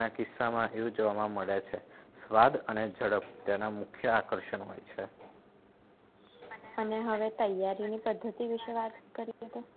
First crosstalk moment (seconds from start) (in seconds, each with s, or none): none